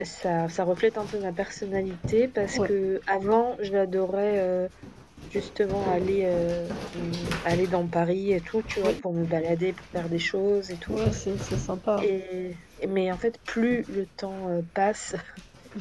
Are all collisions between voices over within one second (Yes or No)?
Yes